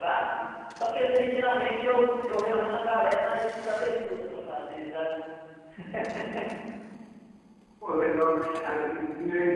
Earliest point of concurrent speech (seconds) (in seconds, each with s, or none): none